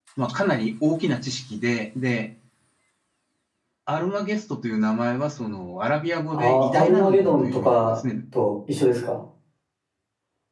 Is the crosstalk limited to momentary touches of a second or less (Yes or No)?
No